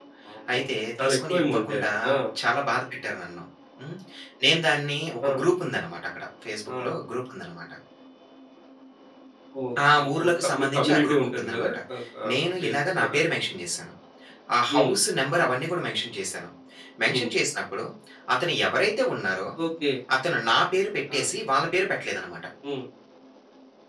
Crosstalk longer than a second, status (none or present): present